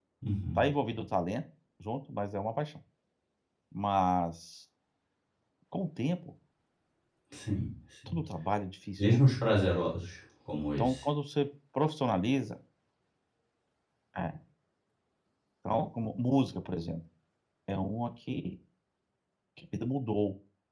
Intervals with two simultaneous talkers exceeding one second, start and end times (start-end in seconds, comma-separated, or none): none